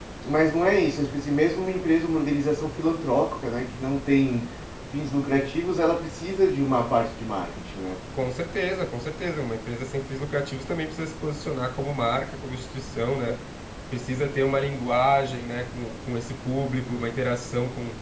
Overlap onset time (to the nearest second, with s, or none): none